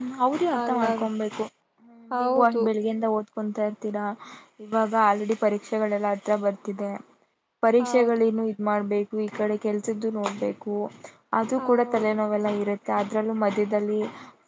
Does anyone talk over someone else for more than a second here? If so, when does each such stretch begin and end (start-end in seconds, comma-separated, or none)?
none